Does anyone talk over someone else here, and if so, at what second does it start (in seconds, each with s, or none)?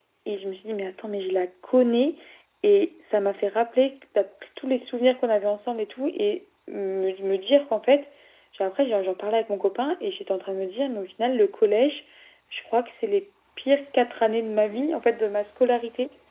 none